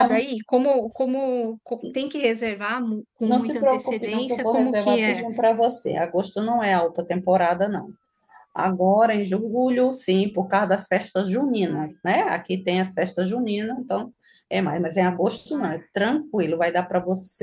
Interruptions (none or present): present